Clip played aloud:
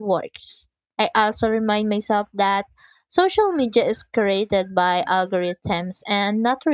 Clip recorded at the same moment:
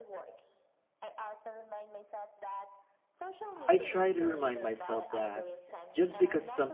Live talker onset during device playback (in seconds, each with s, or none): 3.6 s